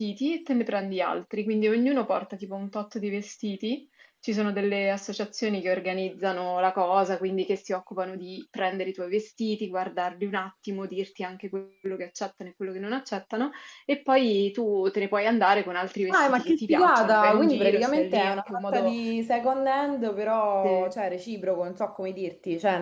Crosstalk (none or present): present